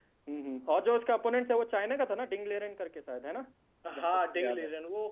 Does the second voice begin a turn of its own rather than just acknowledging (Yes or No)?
Yes